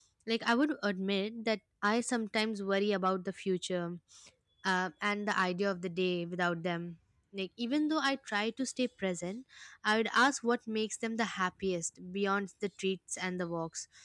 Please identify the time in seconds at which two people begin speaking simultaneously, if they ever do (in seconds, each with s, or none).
none